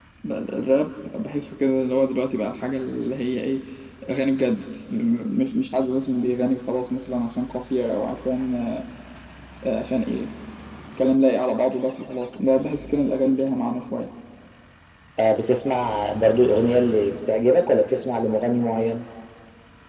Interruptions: none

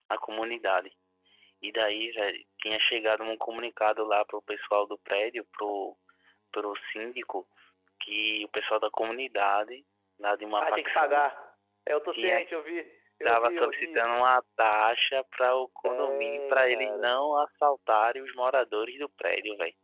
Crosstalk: present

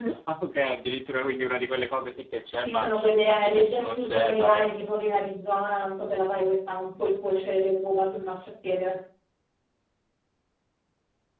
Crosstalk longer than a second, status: present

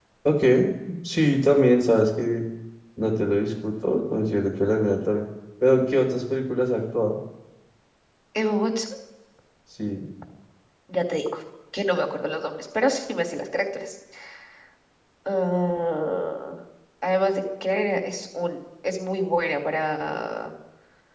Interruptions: none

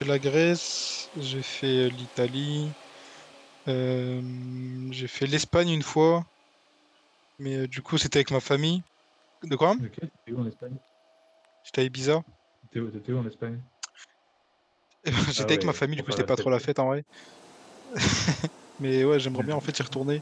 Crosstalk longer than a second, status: present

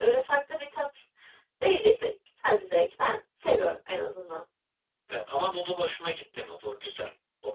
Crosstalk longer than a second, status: none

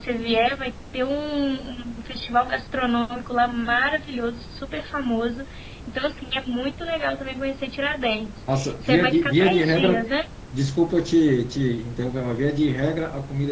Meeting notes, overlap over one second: present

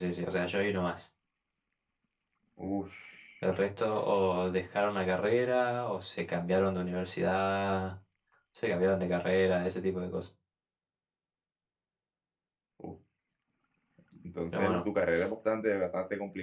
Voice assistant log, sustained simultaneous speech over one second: none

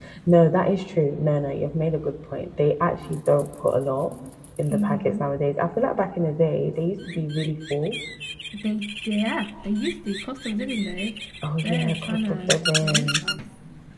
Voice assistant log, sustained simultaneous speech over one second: present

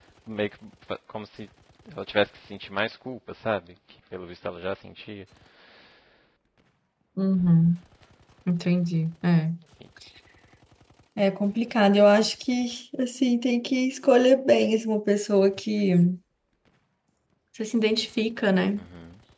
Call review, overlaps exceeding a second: none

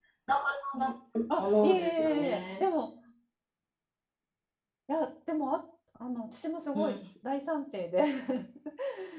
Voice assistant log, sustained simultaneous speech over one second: present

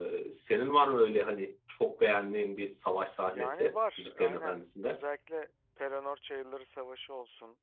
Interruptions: present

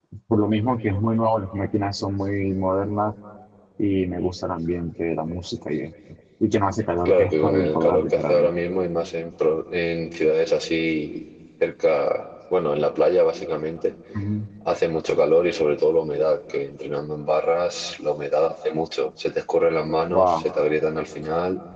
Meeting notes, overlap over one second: present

